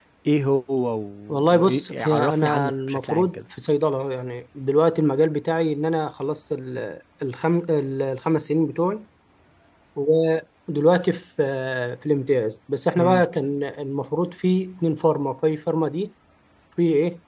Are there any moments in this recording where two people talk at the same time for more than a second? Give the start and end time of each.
1.3-3.4

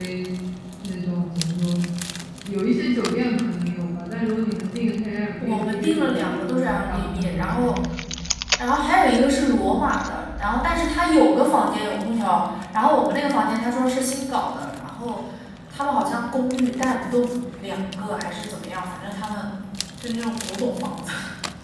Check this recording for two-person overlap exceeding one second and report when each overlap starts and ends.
5.4-7.8

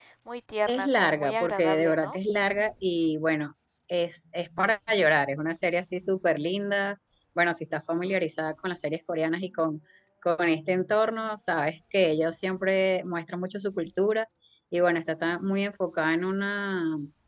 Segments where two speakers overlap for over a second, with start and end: 0.7-2.2

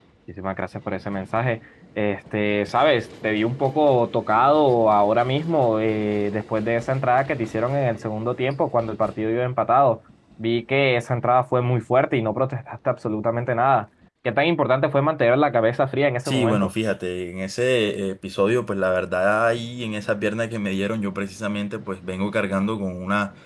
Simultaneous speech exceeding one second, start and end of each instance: none

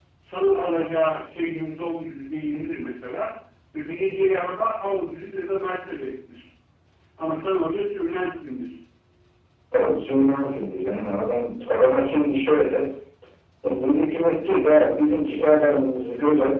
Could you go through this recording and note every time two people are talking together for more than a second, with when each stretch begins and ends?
none

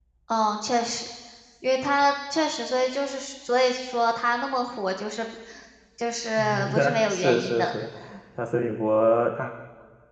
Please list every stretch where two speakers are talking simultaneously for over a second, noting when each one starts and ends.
6.4-7.8

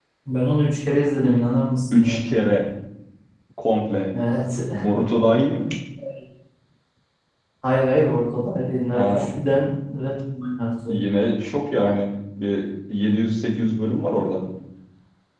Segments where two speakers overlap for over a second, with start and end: none

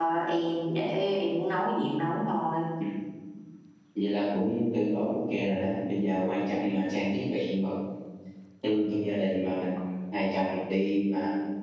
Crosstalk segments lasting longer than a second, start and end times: none

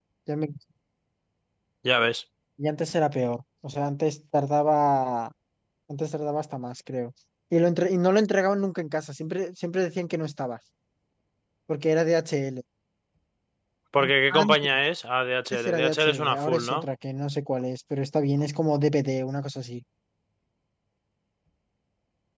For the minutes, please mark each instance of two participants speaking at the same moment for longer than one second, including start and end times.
15.5-16.9

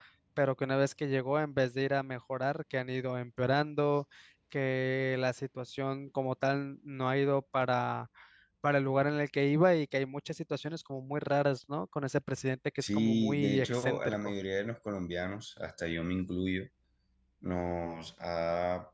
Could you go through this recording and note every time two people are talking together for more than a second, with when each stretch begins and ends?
12.8-14.3

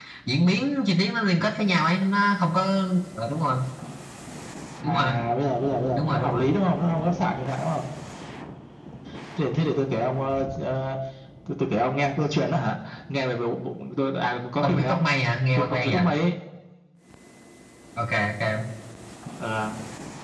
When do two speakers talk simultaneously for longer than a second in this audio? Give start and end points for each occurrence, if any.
none

